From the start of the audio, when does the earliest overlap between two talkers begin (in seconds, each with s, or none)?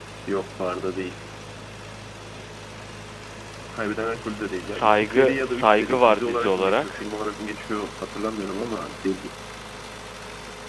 4.6 s